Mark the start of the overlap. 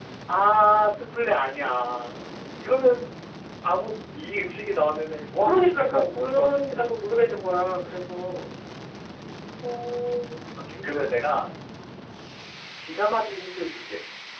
5 s

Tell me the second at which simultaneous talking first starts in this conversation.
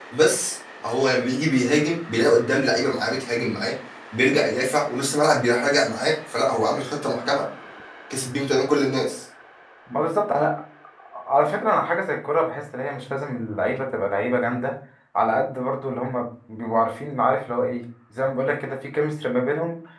none

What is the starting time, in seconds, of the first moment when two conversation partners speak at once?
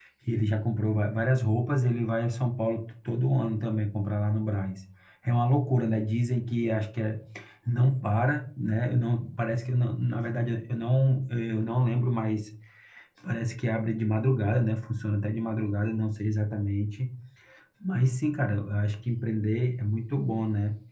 none

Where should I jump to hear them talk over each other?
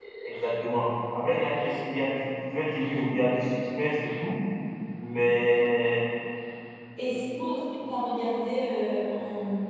none

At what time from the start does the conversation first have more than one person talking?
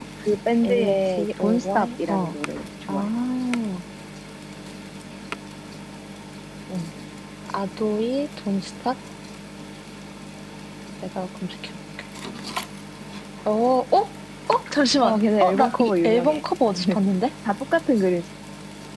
1 s

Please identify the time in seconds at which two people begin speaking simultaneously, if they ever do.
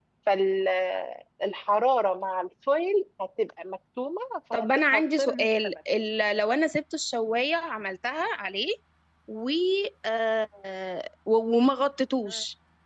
5 s

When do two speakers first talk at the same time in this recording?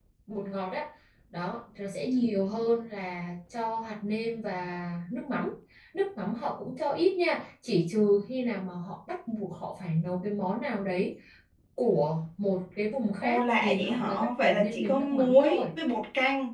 13 s

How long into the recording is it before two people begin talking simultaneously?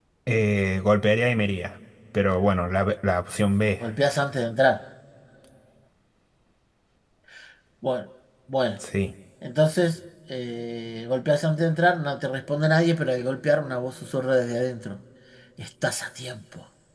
none

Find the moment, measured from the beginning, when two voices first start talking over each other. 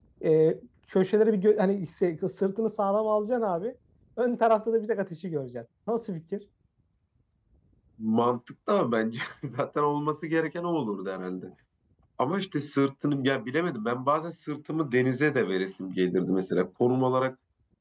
none

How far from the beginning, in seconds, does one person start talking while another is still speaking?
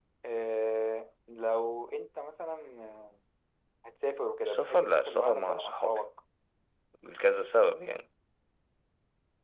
4 s

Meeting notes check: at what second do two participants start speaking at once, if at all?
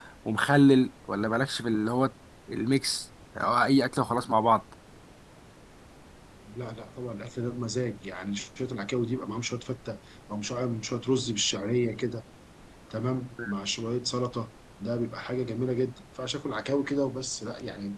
none

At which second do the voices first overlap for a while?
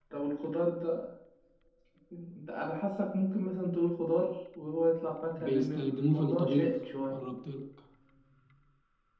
5 s

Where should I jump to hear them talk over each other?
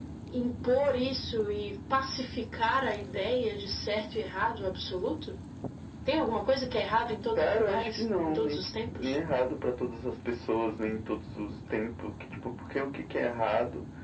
7 s

